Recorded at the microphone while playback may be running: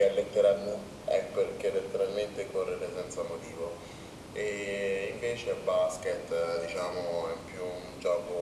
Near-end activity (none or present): none